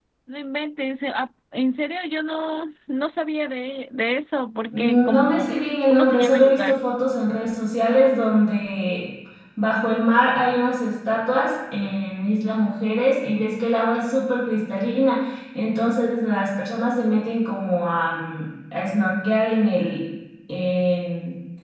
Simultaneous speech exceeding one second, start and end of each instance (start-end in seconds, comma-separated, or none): 4.7-6.8